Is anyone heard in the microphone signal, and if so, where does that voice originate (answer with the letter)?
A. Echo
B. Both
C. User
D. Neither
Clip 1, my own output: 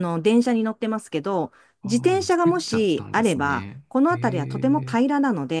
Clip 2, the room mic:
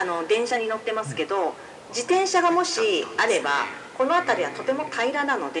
B